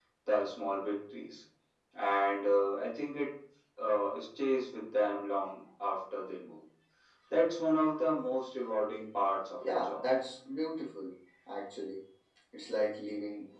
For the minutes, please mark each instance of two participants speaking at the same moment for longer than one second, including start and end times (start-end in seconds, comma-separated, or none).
none